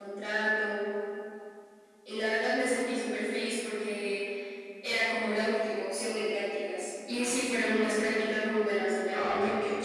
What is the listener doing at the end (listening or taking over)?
taking over